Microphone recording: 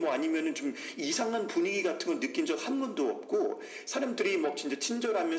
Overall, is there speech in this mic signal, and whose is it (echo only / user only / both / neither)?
echo only